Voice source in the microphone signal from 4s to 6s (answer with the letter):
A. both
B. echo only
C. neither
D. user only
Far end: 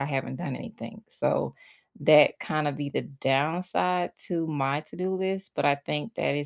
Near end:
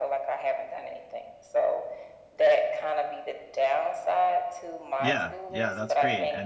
A